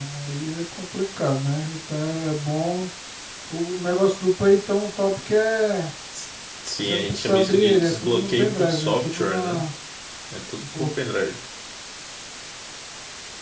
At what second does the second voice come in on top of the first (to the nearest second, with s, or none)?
7 s